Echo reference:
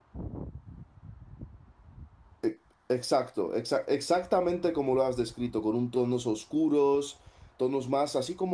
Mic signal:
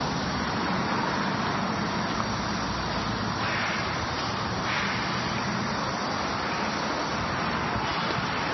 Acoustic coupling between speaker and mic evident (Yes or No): No